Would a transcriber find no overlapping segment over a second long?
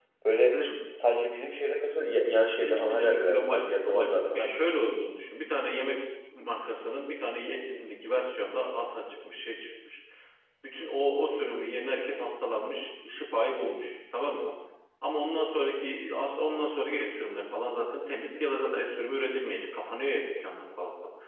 No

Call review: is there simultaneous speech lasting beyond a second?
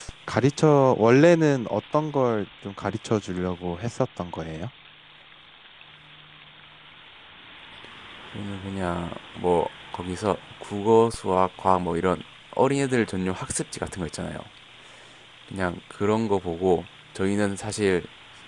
No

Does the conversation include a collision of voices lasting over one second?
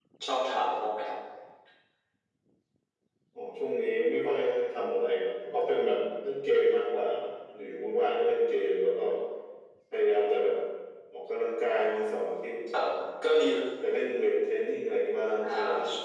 No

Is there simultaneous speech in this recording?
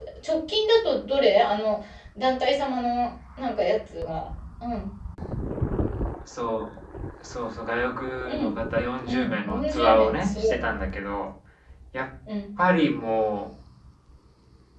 Yes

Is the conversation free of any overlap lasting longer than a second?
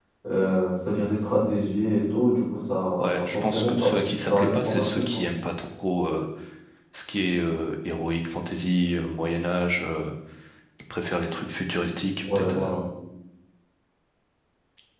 No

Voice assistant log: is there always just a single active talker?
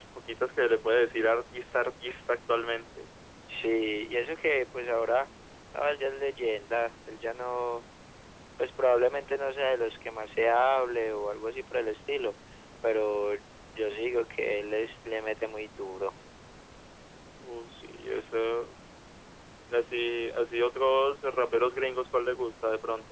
Yes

